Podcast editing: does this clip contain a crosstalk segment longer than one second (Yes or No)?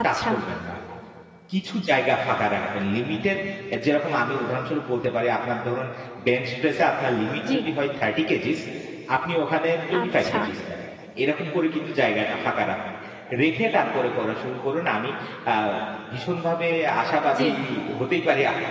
No